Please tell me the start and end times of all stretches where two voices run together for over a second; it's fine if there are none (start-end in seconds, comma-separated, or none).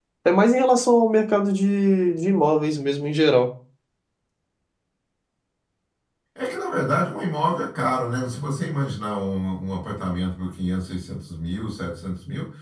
none